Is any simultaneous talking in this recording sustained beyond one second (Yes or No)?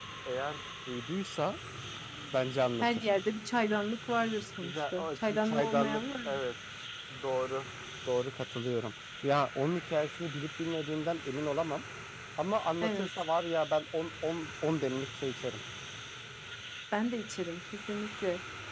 Yes